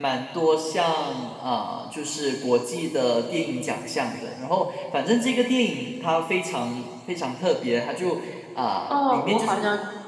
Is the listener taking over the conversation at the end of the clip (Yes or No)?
Yes